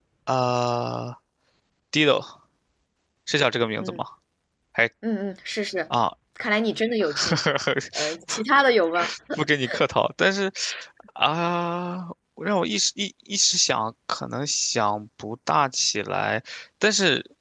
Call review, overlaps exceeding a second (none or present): none